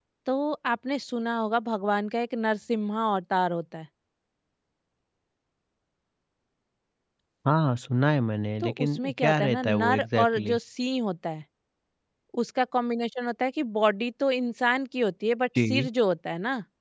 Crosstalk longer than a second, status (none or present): present